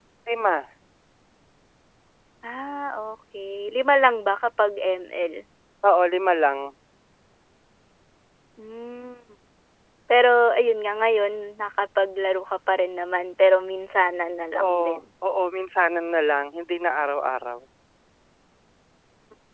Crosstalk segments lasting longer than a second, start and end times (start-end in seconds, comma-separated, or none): none